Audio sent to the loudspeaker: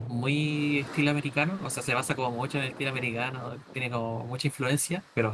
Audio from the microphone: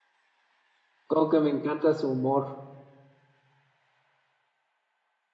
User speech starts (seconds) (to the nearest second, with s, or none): 1 s